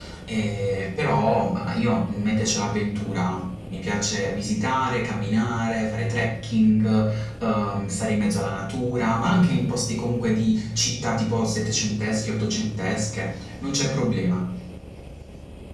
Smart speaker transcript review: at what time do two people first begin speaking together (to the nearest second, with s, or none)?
none